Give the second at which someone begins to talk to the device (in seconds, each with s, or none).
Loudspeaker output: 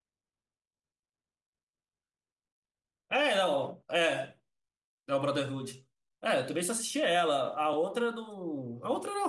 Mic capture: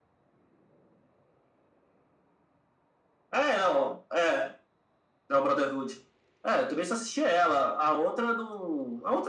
none